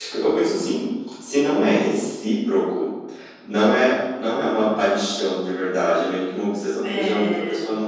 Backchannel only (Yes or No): Yes